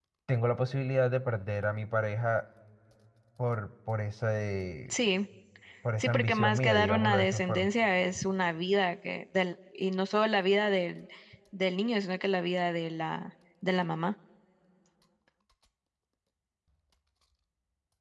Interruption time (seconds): 6 s

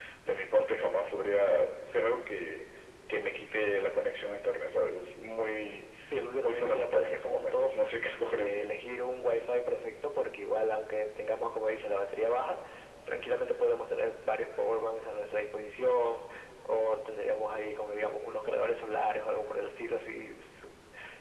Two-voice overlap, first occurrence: 6 s

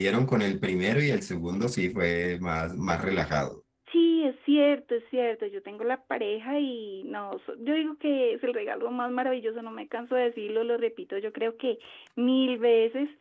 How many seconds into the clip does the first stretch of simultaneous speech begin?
none

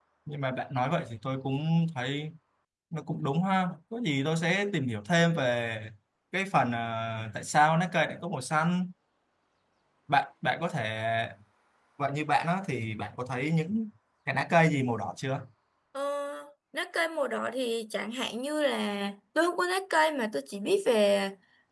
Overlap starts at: none

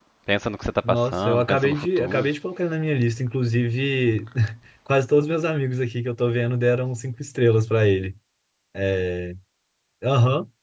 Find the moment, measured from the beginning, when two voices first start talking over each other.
1 s

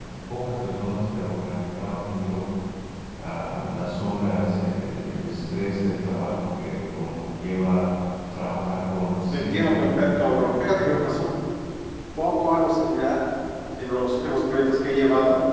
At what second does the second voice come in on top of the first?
9 s

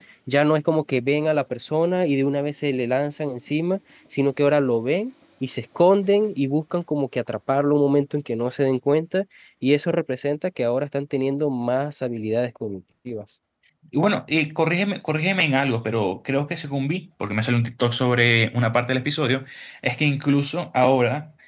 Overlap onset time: none

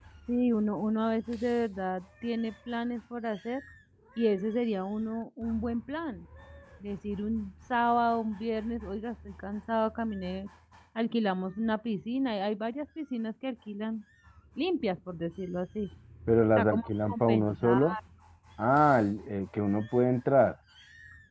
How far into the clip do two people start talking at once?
17 s

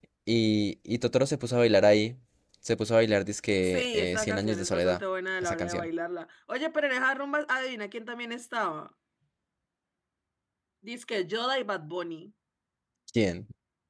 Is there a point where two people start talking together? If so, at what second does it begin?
4 s

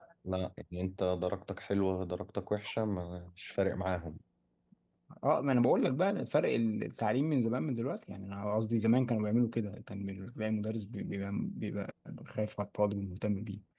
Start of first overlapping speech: none

